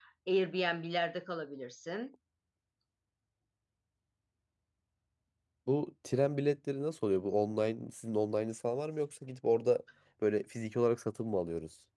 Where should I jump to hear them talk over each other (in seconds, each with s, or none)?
none